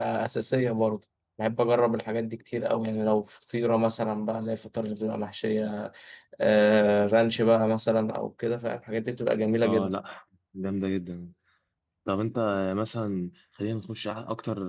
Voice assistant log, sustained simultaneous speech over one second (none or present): none